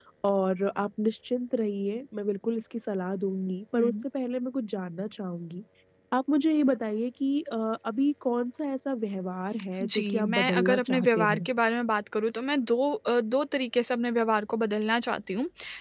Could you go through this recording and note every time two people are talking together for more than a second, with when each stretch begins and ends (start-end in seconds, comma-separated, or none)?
9.8-11.5